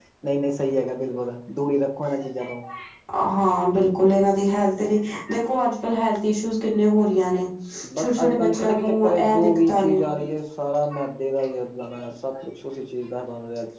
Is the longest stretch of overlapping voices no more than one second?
No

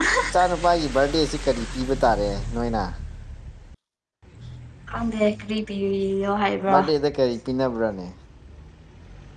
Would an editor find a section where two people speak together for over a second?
No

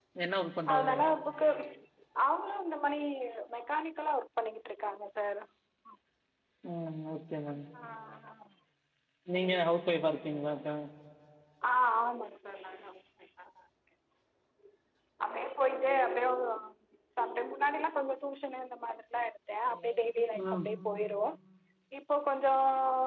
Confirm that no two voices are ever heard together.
No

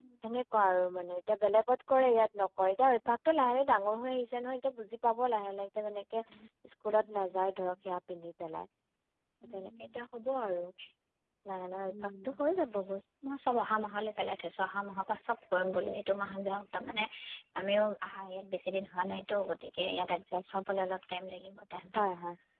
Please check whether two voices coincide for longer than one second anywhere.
No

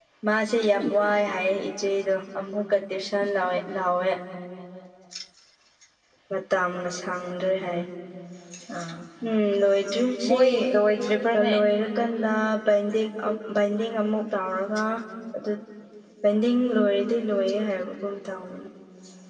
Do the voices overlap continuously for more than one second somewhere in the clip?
No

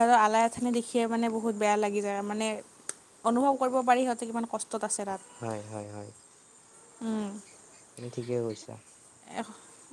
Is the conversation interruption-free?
Yes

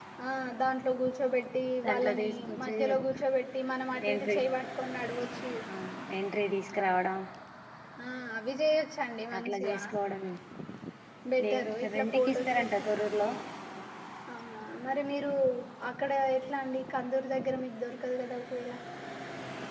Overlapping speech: Yes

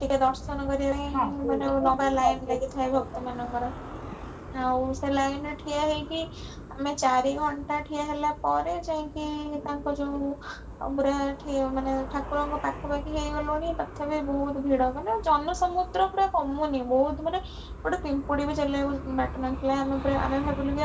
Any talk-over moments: Yes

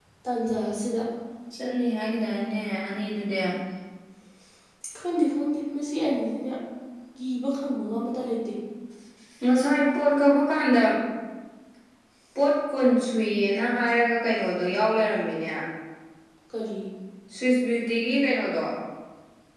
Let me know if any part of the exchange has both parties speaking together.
No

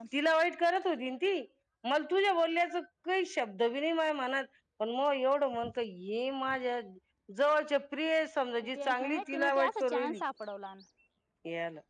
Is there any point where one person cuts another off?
Yes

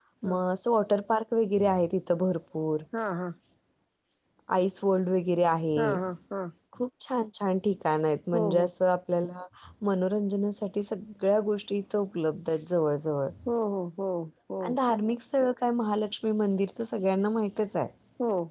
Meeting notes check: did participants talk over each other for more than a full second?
No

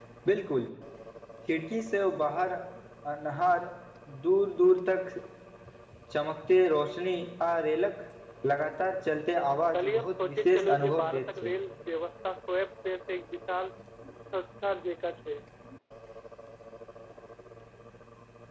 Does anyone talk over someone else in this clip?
Yes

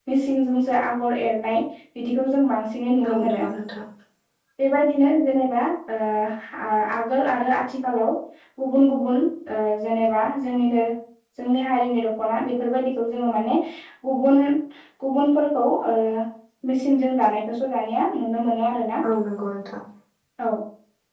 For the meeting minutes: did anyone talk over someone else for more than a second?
No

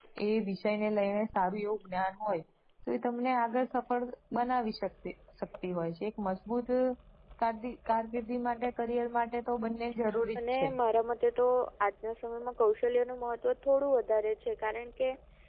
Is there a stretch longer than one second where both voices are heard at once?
No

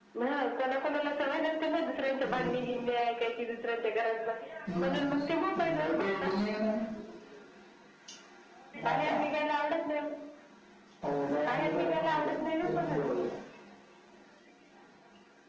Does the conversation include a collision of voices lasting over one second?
Yes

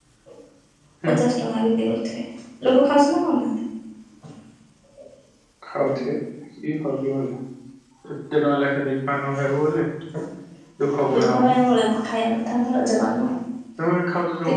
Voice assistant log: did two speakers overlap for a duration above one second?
No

